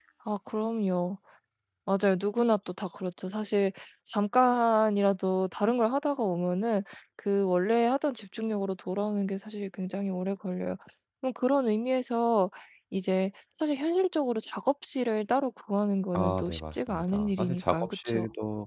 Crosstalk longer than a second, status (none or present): present